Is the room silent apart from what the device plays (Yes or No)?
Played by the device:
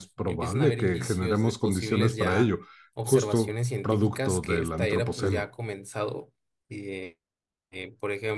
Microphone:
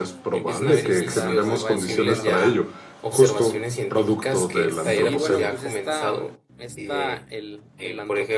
No